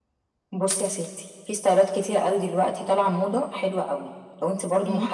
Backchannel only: Yes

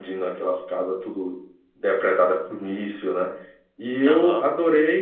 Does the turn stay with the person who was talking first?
Yes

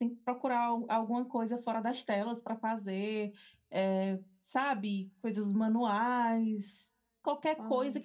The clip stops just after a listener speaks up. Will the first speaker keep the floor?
Yes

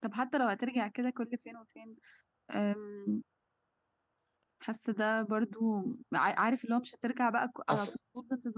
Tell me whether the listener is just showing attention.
Yes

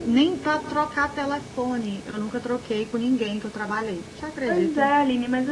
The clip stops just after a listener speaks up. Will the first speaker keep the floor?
No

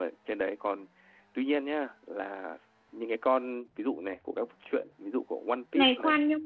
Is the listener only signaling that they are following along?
No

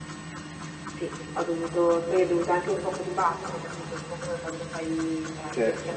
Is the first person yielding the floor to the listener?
No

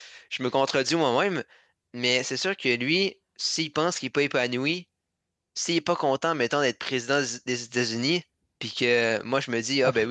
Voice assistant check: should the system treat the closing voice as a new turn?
No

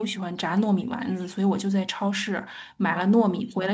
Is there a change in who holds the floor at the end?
No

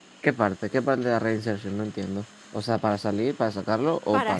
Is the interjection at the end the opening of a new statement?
Yes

